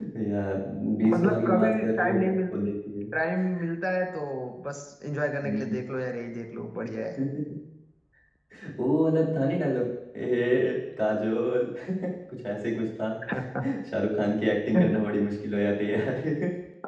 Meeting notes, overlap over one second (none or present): present